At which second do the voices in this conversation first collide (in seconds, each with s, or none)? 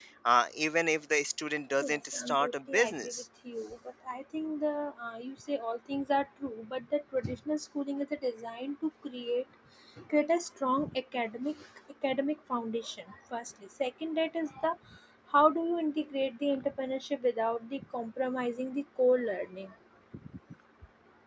1.8 s